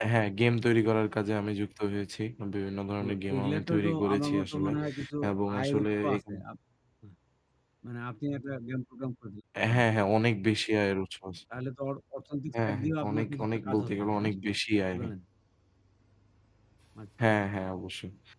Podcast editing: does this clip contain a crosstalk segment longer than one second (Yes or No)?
Yes